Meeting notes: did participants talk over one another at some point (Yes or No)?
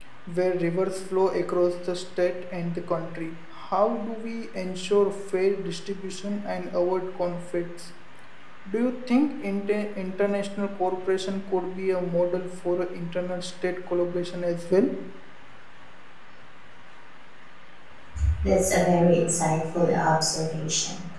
No